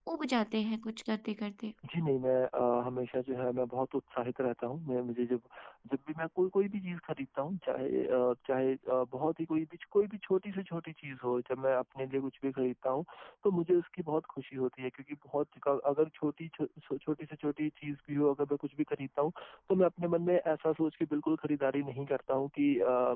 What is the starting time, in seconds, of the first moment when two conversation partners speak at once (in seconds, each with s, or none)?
none